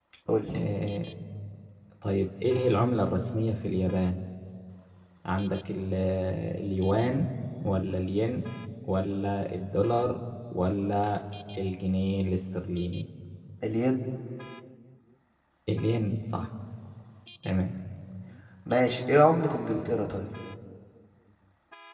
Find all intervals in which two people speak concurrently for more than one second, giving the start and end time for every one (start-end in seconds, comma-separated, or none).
none